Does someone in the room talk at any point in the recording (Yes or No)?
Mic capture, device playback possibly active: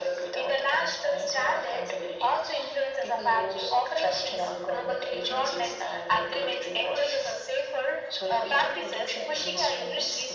No